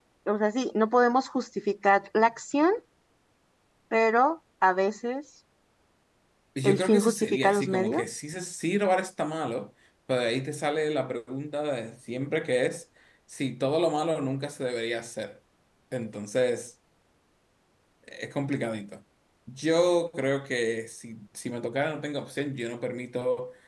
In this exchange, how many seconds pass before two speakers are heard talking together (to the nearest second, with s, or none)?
7 s